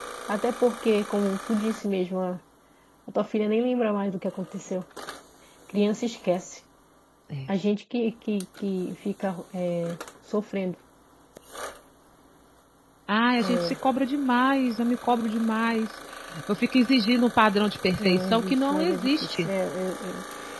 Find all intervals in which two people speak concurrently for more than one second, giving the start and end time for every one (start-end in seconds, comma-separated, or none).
18.0-19.5